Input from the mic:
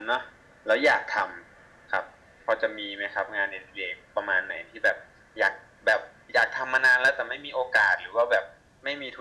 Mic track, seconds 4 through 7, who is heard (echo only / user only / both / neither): echo only